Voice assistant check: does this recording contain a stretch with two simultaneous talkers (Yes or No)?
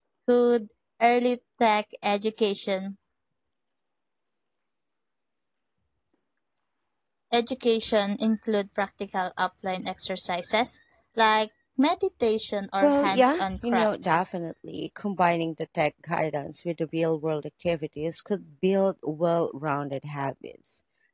Yes